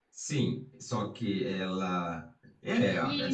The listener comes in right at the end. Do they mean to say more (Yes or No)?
Yes